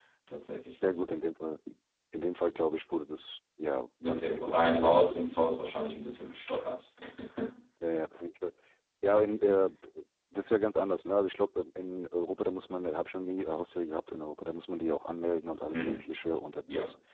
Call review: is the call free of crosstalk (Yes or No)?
No